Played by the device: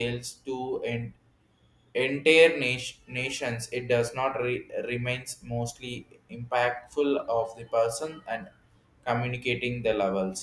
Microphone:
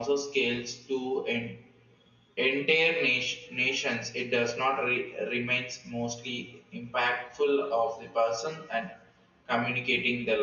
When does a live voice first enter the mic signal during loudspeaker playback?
none

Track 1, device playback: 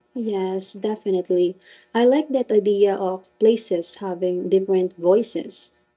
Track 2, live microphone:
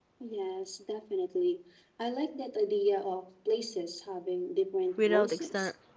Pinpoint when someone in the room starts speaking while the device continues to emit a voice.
5.0 s

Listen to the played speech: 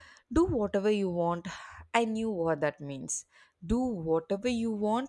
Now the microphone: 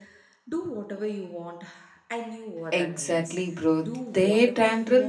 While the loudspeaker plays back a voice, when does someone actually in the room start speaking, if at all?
2.7 s

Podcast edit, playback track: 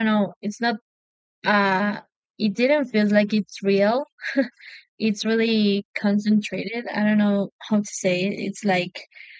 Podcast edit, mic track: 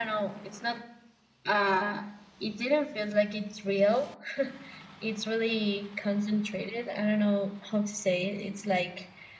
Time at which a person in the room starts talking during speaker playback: none

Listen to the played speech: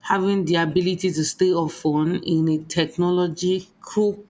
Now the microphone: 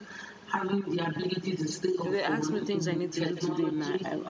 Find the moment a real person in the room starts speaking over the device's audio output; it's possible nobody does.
2.0 s

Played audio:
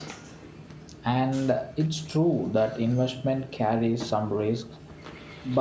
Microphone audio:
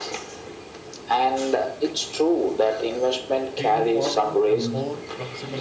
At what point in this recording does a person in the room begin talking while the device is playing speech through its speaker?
3.6 s

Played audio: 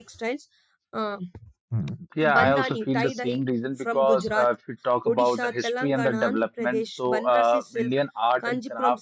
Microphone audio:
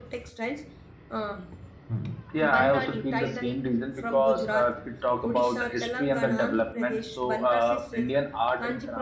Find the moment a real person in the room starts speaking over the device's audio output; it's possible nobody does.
none

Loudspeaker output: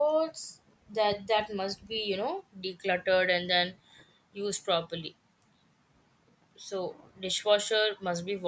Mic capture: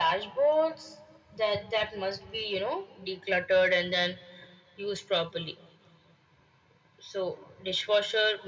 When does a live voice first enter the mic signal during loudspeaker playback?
none

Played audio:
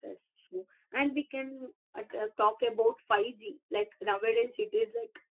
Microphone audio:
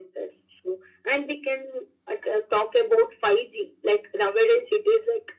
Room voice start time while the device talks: none

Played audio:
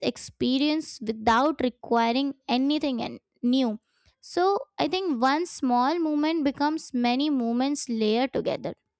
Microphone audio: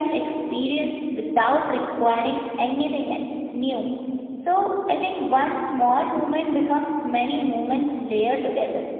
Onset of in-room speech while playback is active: none

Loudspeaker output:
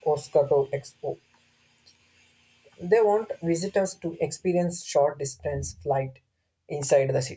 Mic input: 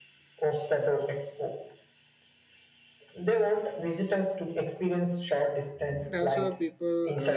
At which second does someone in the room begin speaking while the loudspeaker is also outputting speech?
6.0 s

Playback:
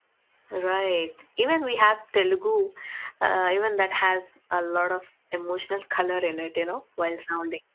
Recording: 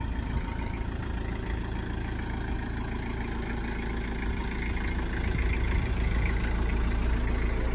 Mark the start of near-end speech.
none

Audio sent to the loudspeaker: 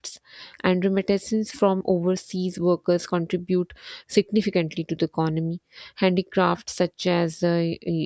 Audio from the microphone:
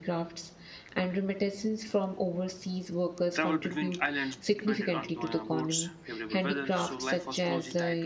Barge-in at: 3.3 s

